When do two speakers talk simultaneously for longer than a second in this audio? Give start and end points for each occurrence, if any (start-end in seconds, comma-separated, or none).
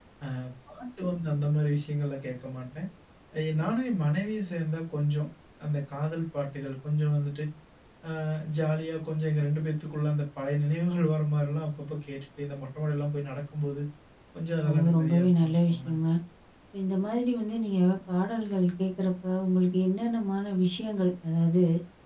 14.7-16.0